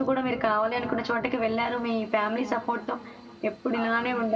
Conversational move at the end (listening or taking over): listening